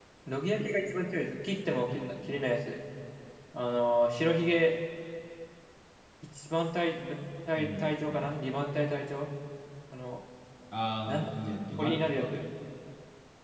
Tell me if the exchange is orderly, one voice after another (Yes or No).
No